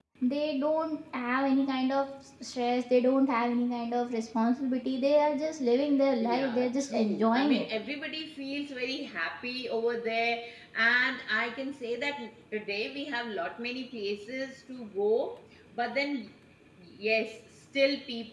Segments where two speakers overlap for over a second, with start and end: 6.2-7.6

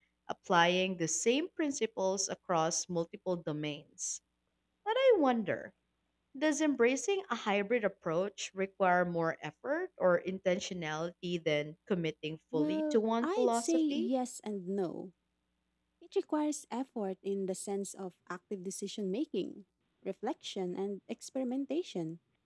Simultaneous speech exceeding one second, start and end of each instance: 12.5-14.1

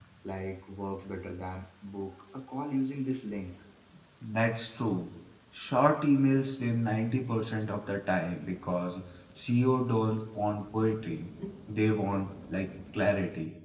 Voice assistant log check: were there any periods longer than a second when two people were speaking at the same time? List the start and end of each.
none

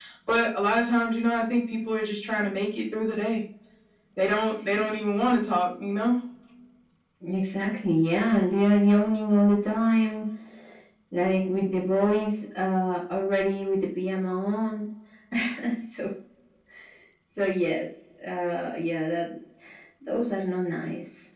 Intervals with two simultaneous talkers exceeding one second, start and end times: none

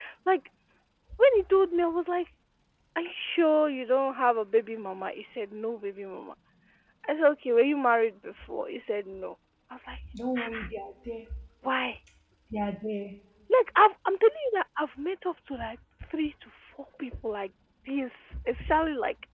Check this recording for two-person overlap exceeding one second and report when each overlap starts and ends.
none

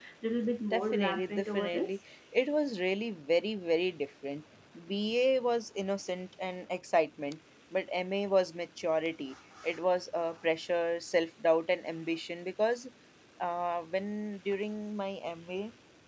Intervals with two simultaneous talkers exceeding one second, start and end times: 0.7-1.9

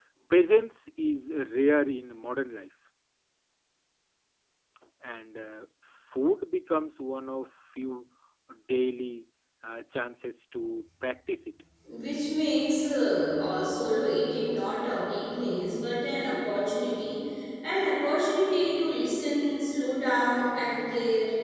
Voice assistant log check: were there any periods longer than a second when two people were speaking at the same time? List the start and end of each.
none

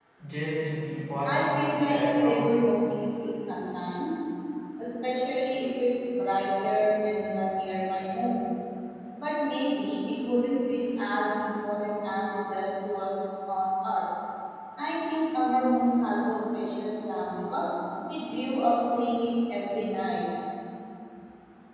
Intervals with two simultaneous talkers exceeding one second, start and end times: 1.2-2.5

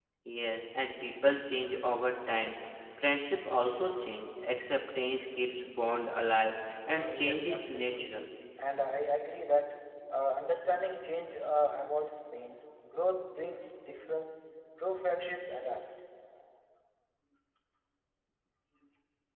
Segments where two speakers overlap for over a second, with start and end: 6.9-8.2

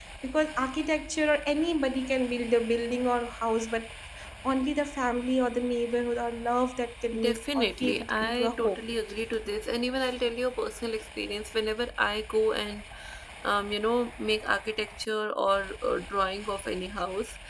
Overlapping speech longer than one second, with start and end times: 7.2-8.8

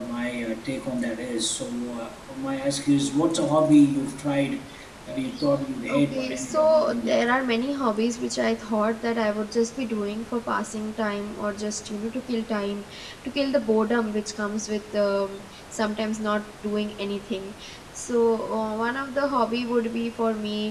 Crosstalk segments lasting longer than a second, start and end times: 5.9-7.1

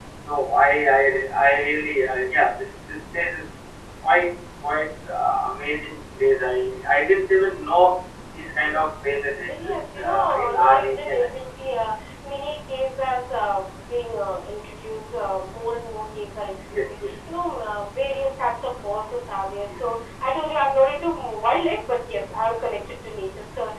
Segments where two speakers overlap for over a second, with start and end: 9.5-11.5

